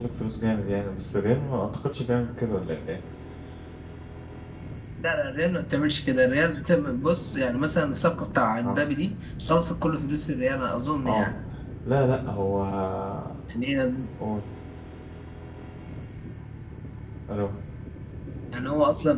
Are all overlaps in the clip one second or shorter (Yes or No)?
Yes